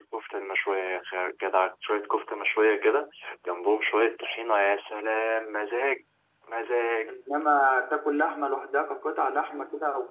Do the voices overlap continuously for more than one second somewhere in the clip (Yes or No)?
No